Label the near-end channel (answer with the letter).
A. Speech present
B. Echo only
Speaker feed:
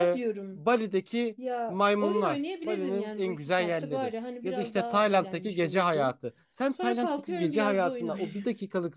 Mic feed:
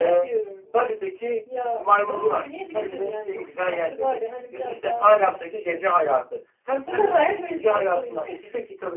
A